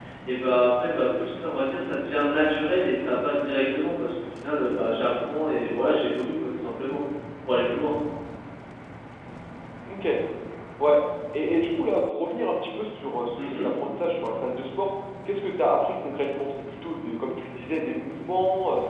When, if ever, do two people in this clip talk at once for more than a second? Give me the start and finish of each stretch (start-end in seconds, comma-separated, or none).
none